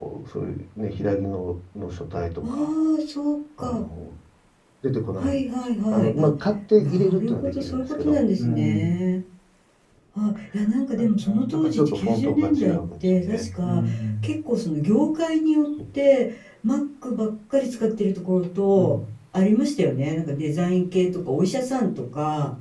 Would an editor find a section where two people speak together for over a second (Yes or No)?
Yes